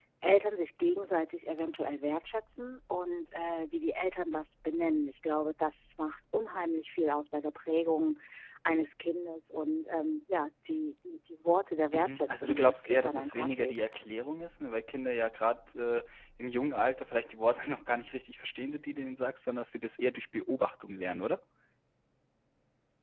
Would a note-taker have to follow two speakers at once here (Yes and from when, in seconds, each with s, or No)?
Yes, from 11.9 s